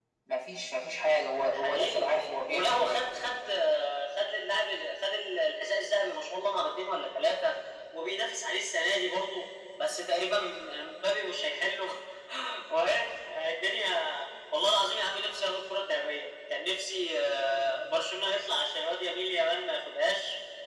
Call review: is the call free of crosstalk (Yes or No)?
No